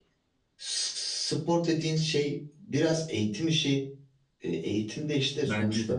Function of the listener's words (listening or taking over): listening